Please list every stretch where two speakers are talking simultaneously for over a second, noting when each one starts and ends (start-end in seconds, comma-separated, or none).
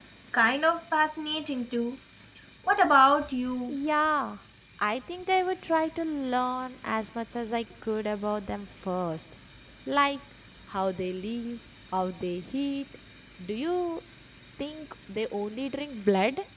none